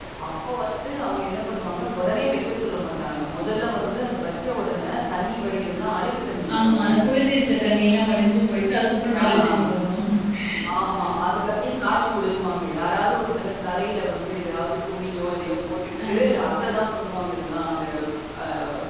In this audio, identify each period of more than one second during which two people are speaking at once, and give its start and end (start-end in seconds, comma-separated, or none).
none